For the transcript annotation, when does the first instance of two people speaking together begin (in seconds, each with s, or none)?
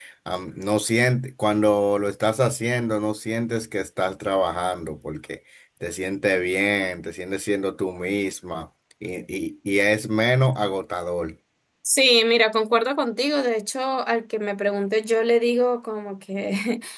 none